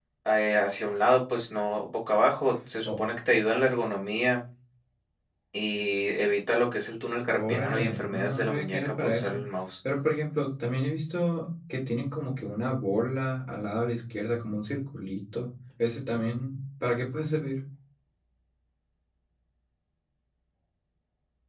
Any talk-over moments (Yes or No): Yes